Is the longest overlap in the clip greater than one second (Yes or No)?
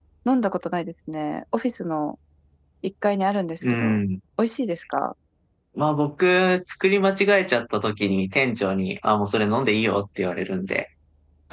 No